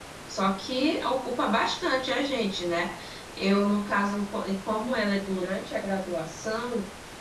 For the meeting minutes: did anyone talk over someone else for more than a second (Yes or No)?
No